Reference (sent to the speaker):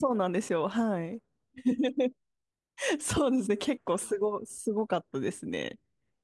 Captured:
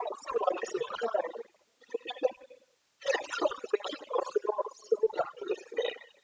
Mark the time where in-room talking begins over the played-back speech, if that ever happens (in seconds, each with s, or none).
none